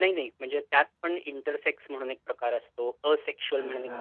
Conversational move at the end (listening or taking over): listening